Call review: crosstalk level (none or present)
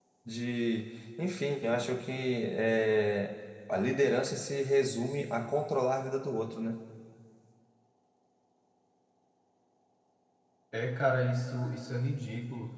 none